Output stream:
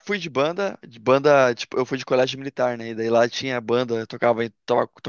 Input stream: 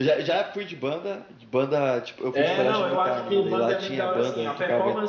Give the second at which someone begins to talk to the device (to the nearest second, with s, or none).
2 s